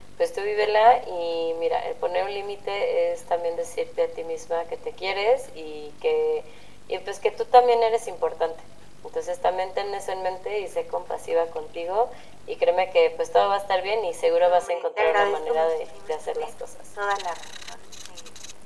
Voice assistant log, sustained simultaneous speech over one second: present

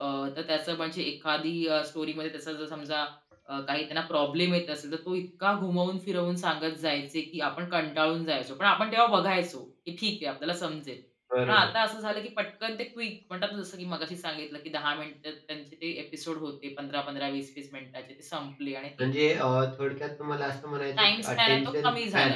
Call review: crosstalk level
present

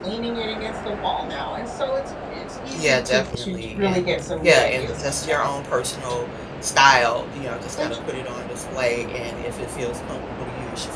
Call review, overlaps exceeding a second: present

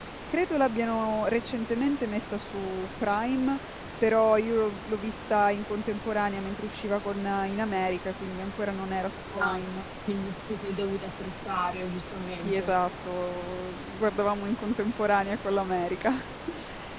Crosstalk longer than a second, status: none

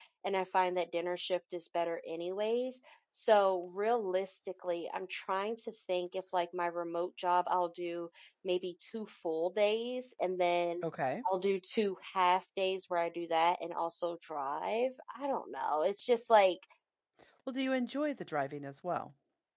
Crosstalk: none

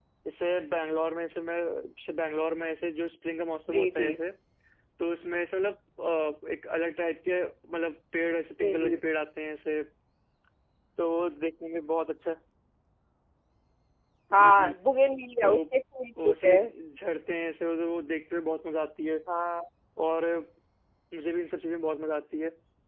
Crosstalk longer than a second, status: none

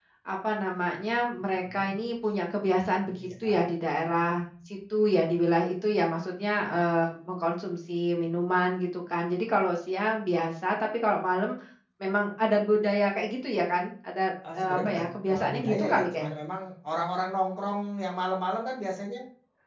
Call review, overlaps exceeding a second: present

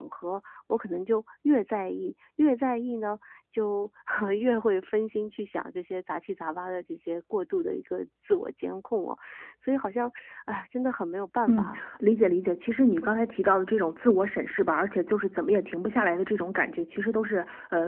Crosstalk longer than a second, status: none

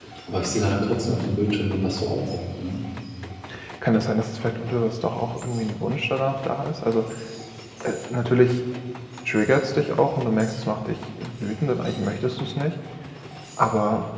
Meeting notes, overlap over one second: none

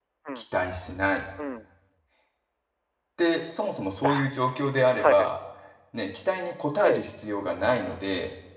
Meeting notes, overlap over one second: none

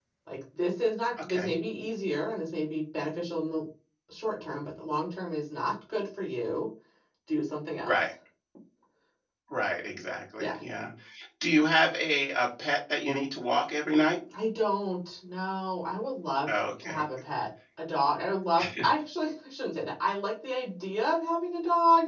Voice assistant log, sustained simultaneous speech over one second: none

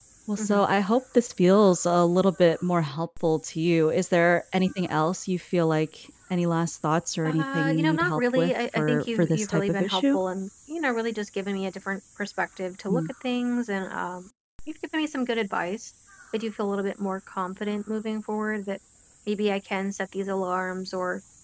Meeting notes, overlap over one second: present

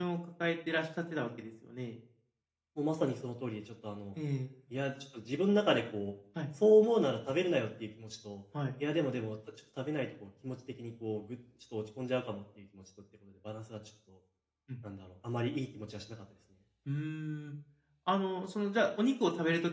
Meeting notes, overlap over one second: none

